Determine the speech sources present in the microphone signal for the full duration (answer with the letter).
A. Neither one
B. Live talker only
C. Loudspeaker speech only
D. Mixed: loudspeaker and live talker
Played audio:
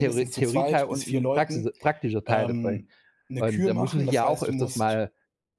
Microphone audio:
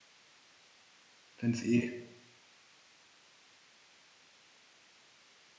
B